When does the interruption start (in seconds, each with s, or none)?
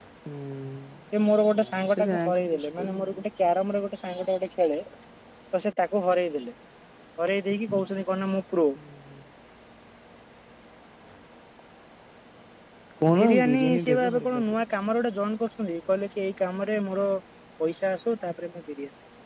1.5 s